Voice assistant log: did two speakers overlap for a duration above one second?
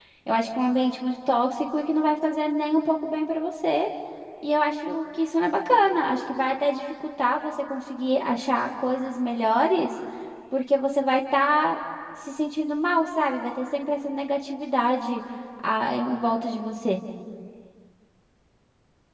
No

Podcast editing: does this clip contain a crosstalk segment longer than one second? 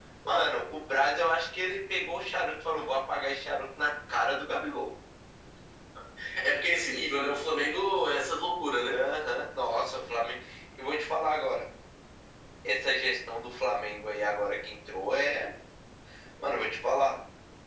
No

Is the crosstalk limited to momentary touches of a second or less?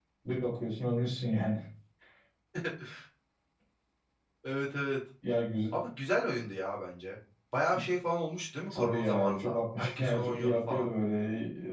No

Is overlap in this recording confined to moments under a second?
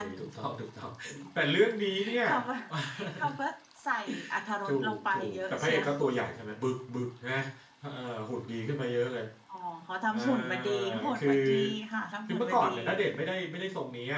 No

